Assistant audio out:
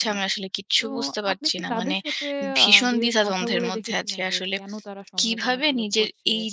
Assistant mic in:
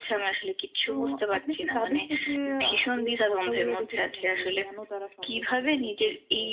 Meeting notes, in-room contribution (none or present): none